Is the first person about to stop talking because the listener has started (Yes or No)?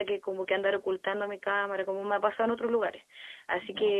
No